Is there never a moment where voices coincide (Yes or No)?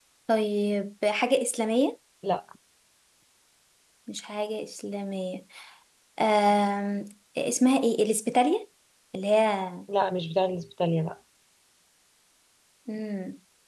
Yes